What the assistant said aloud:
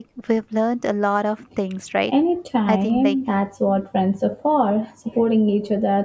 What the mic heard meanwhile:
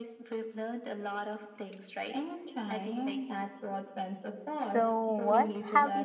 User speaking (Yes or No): Yes